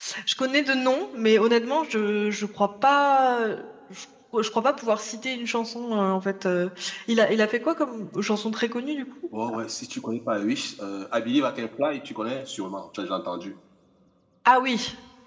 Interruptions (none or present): none